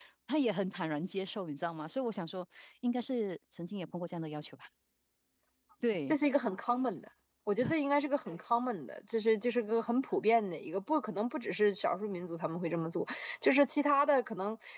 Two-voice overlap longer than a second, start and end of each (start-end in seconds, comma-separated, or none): none